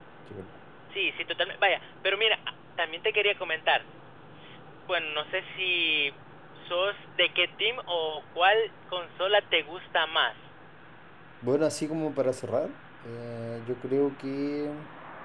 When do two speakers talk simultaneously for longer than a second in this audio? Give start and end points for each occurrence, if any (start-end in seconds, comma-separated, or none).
none